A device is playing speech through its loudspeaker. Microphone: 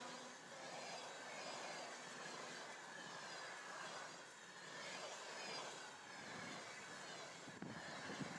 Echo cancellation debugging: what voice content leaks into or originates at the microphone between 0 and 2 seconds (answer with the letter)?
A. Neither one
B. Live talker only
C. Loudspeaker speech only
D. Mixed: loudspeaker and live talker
A